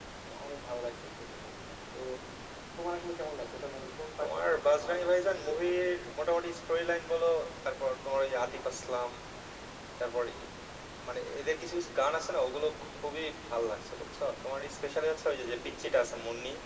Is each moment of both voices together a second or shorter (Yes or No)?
No